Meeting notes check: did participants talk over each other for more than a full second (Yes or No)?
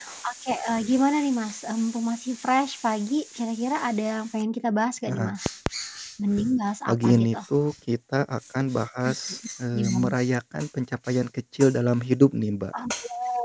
No